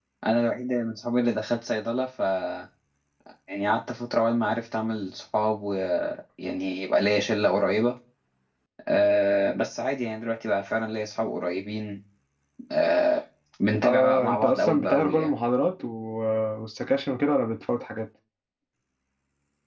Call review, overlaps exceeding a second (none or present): present